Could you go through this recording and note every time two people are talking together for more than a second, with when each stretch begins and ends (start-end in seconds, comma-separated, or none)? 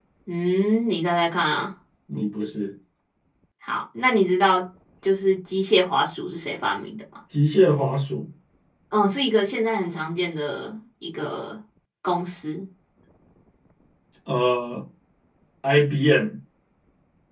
none